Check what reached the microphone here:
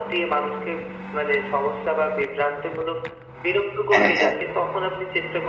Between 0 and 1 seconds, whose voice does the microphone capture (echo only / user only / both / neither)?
echo only